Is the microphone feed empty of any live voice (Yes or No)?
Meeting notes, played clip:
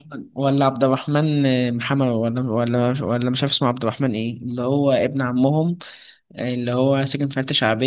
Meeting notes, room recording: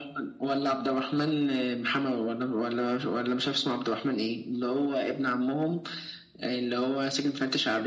Yes